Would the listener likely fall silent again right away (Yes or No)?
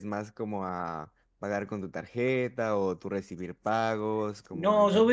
No